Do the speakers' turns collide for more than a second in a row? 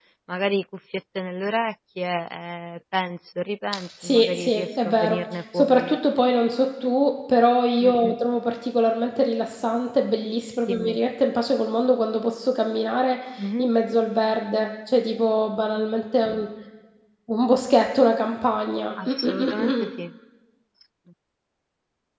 Yes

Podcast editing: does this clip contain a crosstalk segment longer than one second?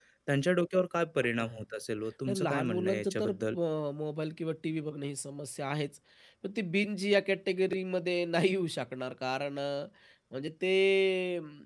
Yes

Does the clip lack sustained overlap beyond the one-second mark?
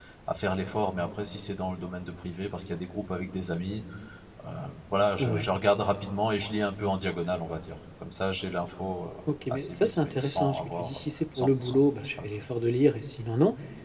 No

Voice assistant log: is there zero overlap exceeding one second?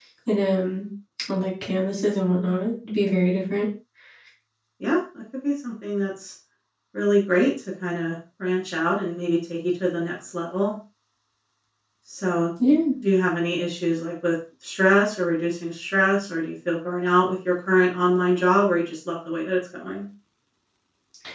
Yes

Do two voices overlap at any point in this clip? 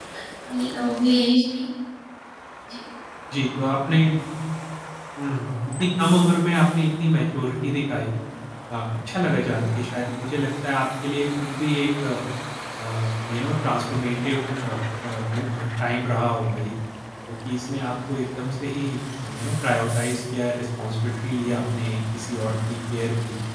No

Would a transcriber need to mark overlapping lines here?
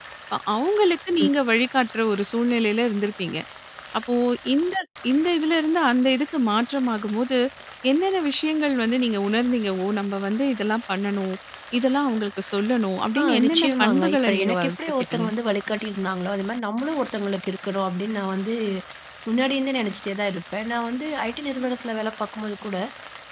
Yes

